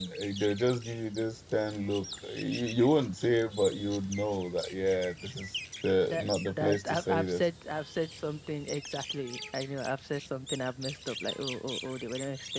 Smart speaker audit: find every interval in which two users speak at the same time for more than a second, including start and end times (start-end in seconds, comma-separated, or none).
6.1-7.4